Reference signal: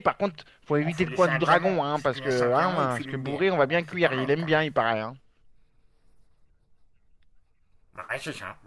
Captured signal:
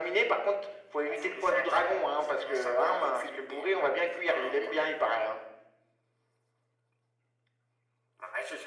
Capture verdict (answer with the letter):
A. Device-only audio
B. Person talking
A